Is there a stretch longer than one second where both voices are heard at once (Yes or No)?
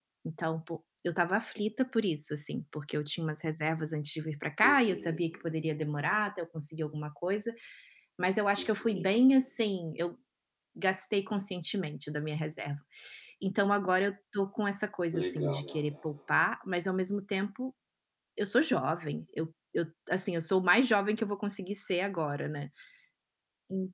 No